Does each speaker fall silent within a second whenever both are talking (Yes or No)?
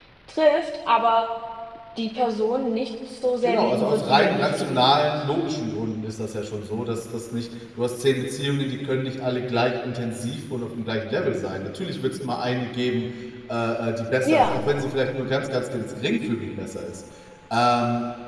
No